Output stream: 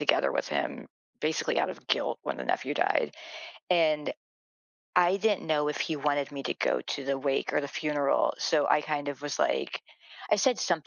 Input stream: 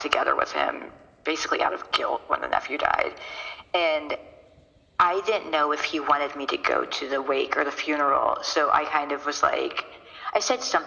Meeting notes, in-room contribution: none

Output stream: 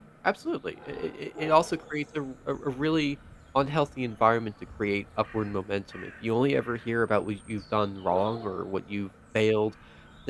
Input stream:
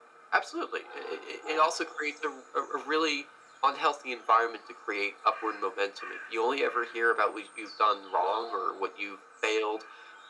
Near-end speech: none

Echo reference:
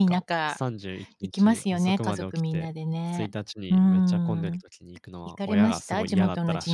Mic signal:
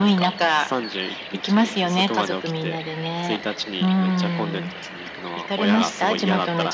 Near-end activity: none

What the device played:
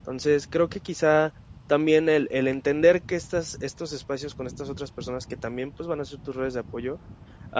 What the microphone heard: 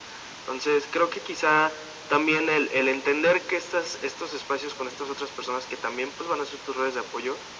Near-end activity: none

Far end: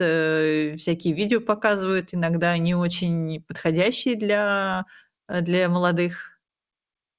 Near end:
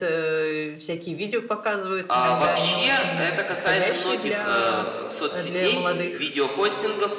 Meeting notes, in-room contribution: present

